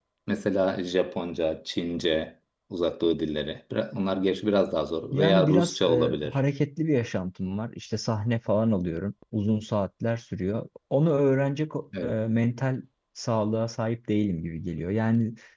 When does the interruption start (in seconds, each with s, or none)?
5.1 s